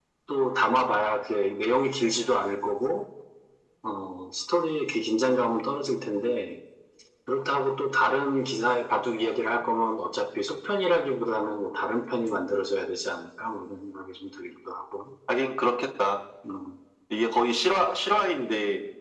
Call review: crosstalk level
none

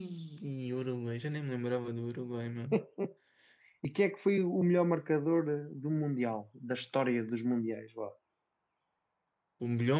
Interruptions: none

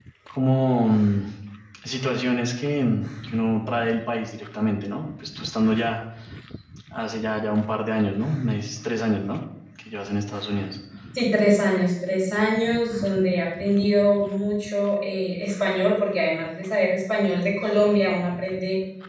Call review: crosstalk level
none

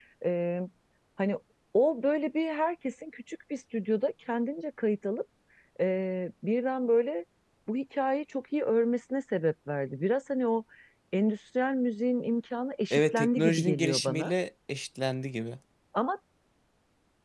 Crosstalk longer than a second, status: present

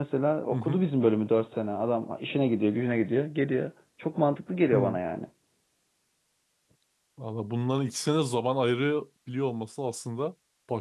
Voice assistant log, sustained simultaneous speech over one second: none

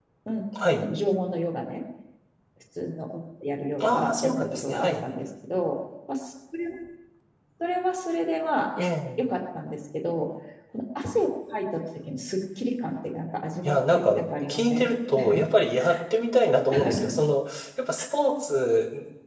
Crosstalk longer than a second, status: present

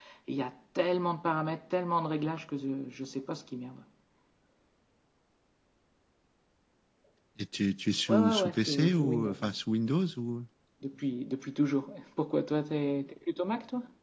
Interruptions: present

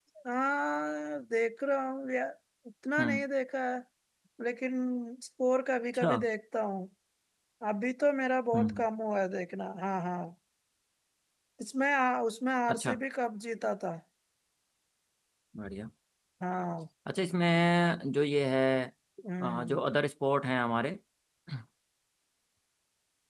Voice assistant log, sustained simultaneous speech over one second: none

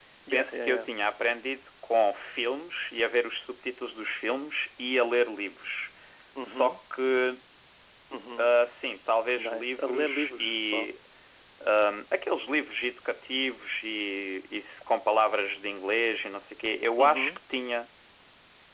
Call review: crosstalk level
present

